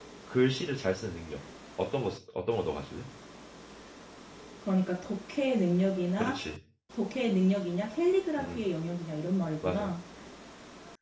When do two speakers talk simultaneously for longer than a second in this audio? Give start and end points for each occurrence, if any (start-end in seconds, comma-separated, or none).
none